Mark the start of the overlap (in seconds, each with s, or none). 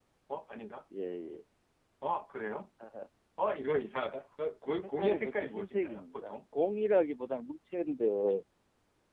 5.0 s